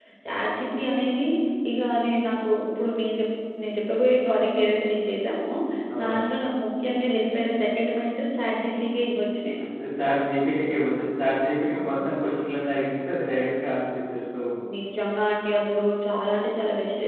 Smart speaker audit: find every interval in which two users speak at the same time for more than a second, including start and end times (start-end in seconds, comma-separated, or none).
none